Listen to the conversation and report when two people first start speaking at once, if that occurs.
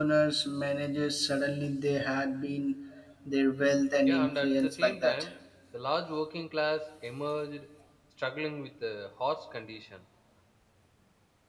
4.0 s

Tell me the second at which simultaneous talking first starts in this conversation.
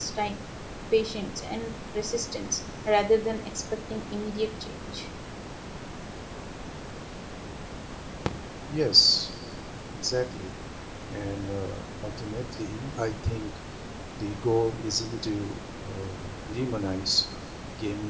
none

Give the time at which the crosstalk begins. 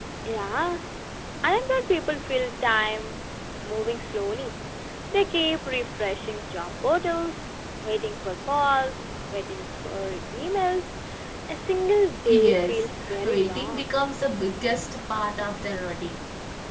12.3 s

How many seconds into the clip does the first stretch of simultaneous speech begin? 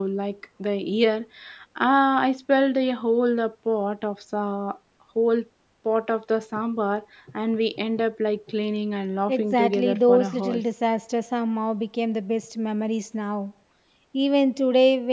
9.3 s

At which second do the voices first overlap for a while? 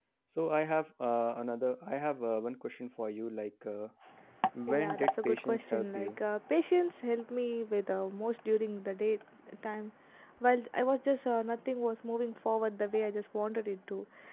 4.6 s

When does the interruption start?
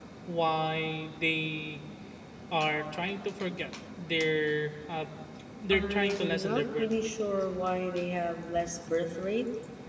5.7 s

